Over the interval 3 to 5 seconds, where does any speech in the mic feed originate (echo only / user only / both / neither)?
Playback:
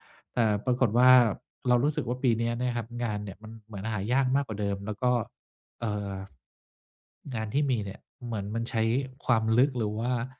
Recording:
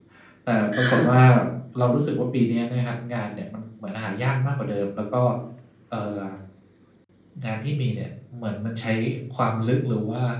echo only